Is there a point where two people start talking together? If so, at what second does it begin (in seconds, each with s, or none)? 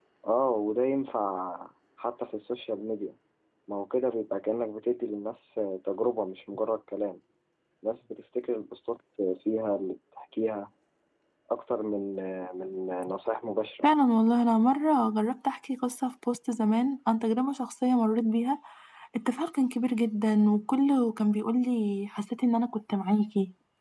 none